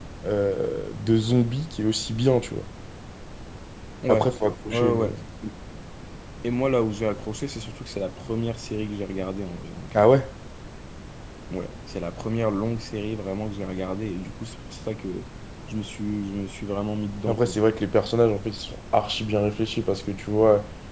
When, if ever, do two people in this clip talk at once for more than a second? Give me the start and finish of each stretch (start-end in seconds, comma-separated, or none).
none